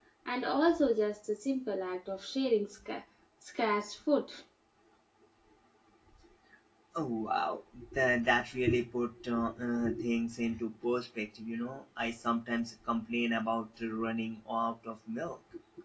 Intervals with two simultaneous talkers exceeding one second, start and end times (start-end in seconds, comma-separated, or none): none